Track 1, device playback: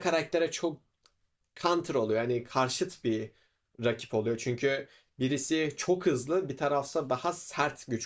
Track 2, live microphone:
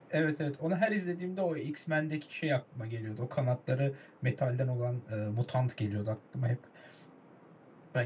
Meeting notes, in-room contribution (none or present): present